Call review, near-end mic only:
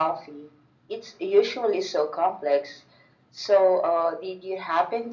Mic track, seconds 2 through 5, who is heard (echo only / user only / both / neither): echo only